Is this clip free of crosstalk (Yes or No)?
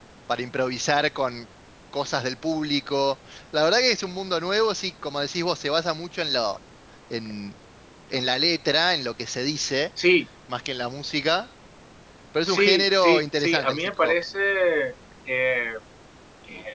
No